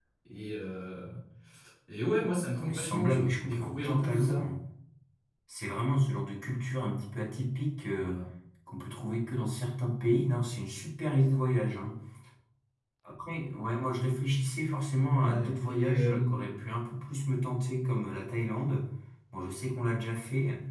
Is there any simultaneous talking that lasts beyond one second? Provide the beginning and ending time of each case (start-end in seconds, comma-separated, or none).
2.5-4.5, 15.2-16.4